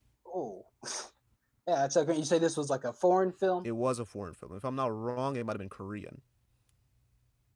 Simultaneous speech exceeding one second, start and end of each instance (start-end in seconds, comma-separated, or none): none